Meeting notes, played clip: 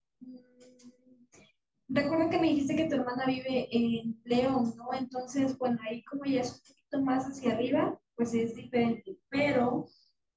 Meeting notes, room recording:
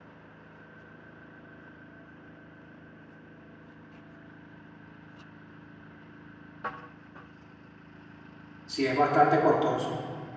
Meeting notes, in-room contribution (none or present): present